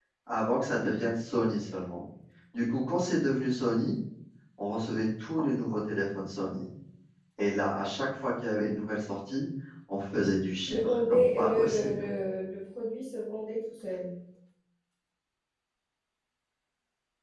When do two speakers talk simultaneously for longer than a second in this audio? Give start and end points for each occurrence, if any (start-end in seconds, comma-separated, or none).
10.7-12.1